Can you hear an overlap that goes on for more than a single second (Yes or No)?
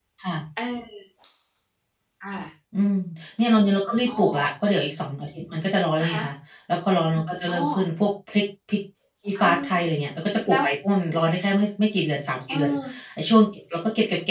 No